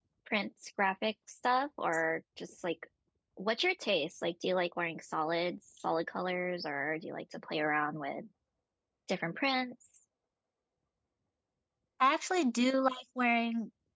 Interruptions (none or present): none